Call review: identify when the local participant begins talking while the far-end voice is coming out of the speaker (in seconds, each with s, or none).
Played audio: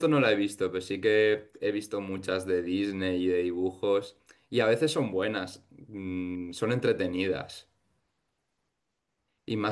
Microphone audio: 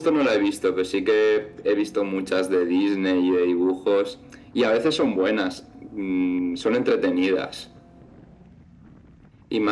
none